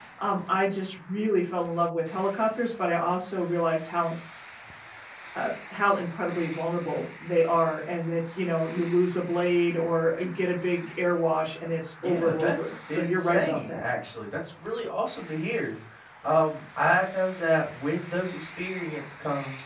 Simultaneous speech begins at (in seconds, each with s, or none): 12.0 s